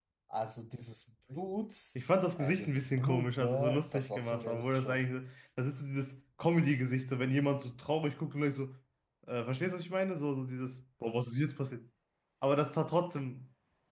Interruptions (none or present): present